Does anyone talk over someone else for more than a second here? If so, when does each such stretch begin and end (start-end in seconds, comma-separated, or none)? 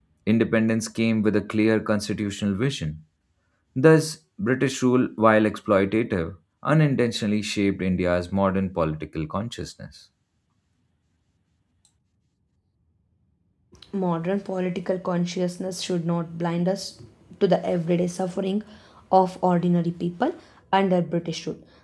none